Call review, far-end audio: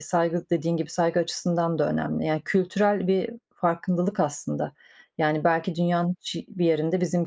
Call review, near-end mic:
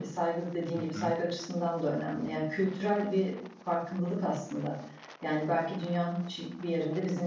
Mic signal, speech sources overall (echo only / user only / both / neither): both